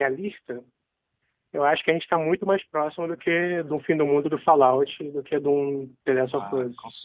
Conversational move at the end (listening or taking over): taking over